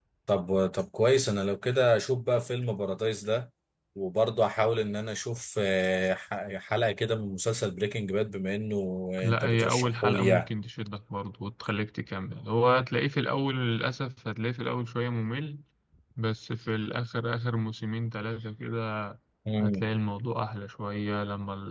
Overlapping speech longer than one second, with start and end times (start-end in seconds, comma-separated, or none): 9.2-10.5